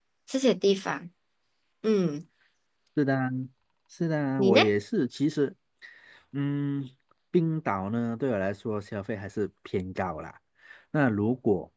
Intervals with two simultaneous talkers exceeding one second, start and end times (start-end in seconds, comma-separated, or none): none